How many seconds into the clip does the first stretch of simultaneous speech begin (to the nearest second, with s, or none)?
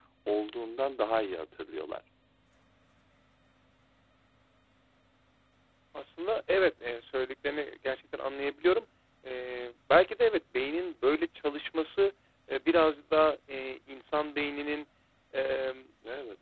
none